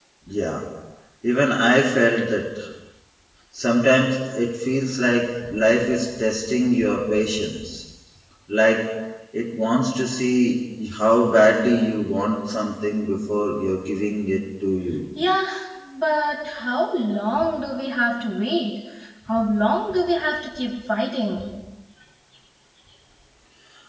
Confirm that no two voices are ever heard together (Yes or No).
Yes